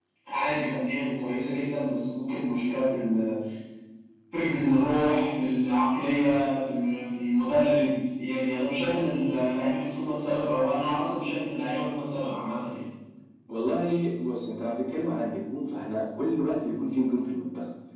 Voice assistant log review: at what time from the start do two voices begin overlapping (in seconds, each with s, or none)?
none